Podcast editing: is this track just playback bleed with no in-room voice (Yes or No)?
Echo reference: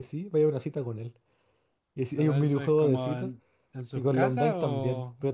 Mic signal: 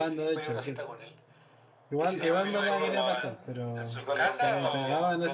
No